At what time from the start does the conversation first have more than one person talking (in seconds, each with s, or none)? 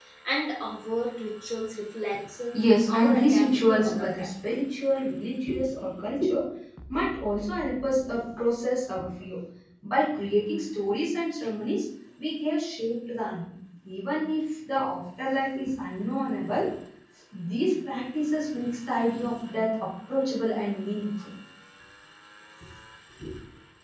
2.9 s